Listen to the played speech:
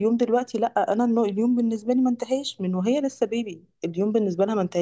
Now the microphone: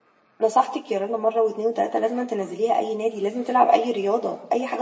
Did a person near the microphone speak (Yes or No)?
Yes